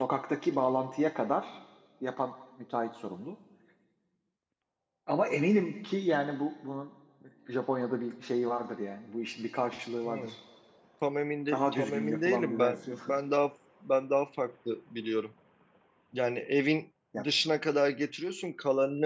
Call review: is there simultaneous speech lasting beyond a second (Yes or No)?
Yes